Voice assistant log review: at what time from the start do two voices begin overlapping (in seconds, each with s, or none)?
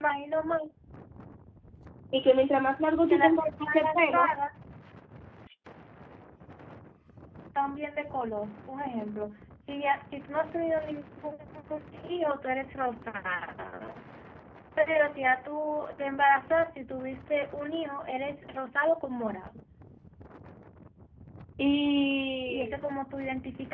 3.1 s